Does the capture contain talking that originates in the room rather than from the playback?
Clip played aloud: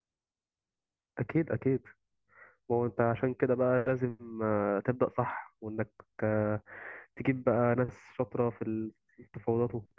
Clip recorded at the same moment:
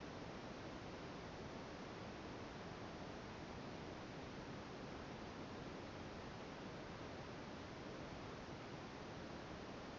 No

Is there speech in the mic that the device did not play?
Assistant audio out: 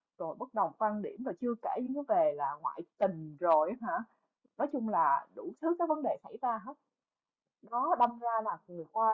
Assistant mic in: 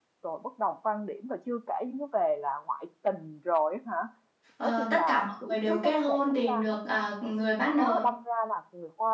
Yes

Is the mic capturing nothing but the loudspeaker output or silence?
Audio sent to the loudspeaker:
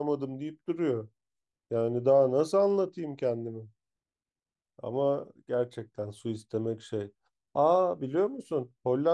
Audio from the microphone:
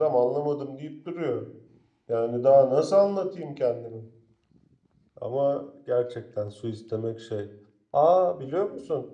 Yes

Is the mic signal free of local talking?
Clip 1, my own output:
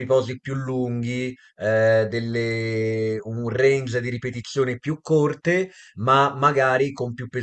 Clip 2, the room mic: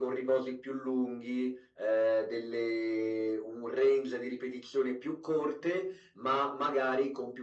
Yes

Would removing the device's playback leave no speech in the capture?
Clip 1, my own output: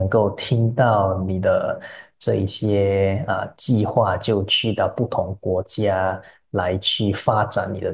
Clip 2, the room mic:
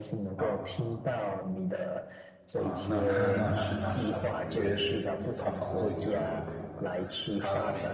No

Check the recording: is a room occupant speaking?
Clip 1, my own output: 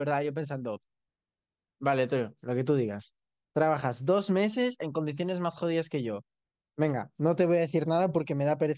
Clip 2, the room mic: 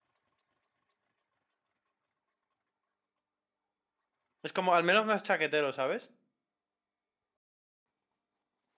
Yes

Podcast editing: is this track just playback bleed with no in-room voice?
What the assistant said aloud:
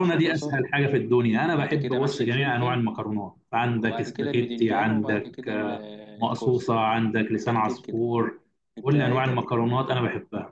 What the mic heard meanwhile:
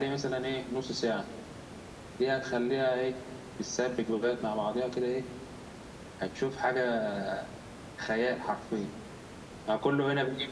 No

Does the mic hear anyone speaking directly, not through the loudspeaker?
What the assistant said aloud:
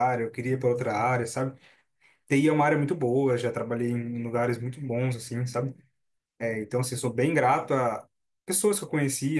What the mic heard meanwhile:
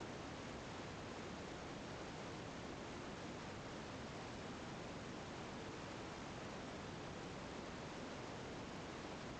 No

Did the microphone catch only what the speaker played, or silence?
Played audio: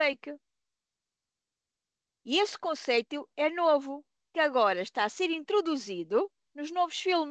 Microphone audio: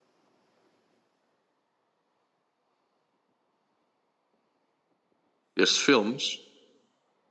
No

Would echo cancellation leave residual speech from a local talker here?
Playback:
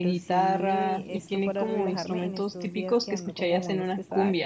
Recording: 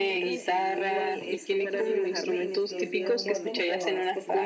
Yes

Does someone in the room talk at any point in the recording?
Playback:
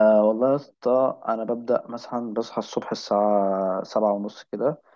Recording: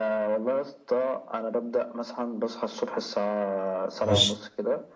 Yes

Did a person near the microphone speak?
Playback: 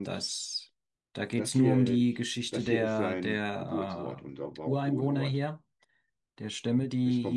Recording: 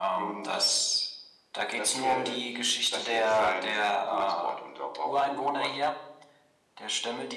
No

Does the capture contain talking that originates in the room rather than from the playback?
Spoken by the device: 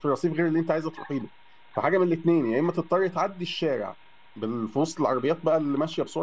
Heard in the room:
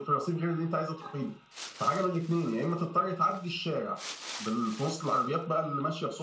No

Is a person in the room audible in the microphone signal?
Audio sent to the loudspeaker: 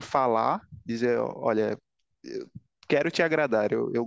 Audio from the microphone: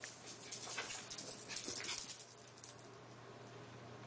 No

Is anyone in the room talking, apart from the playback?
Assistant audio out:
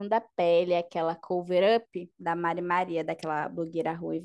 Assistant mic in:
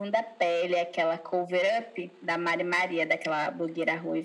No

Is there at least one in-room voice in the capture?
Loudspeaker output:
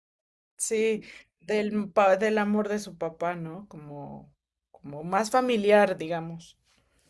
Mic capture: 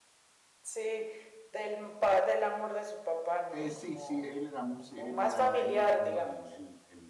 Yes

